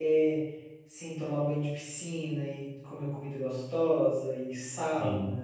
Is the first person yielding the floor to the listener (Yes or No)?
No